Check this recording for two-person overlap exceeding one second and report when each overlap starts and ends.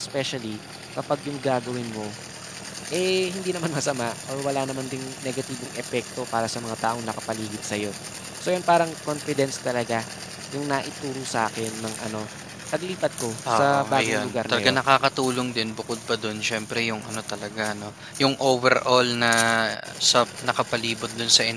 13.5-14.8

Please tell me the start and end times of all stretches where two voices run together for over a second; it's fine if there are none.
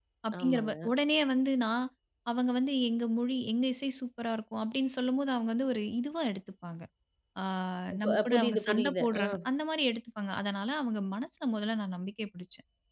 8.0-9.2

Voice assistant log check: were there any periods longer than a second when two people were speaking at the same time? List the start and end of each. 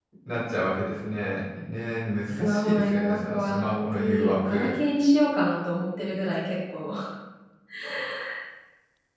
2.4-4.7

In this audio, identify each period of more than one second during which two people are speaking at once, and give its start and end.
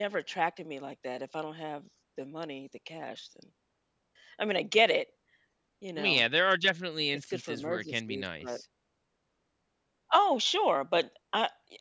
7.1-8.6

